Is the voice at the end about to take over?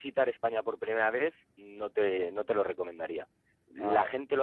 No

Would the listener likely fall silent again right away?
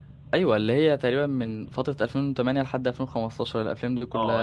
No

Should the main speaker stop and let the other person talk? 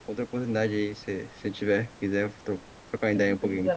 Yes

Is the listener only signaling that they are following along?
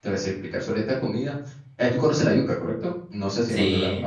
No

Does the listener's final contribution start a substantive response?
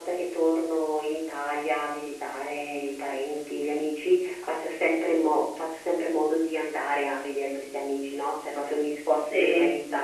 No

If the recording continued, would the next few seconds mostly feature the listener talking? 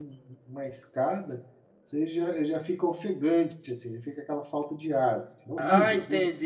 Yes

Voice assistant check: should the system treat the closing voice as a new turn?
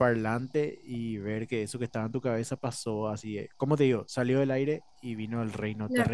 Yes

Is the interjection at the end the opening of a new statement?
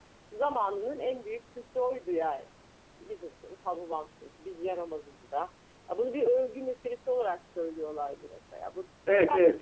Yes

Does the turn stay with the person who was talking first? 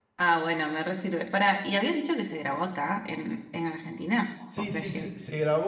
No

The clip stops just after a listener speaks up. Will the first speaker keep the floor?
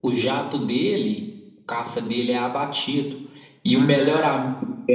Yes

